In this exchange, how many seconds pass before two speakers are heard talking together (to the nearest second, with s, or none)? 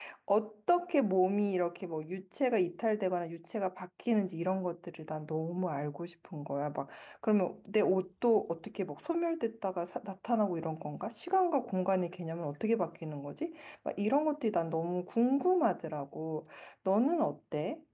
none